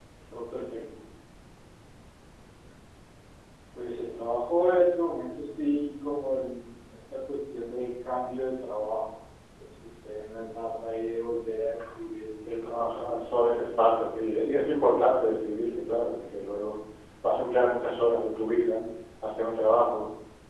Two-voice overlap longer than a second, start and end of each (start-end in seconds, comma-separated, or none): 12.6-14.4